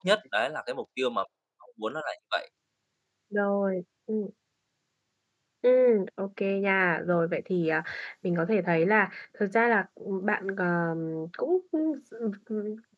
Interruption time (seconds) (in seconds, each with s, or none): none